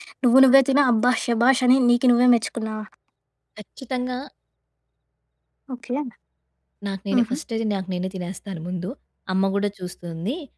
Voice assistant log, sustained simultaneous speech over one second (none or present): none